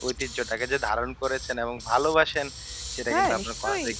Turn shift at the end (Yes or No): No